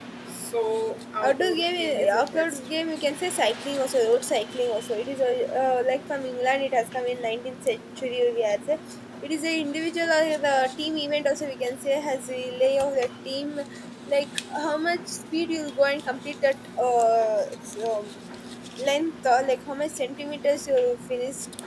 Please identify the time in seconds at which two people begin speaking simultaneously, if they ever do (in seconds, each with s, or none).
1.3 s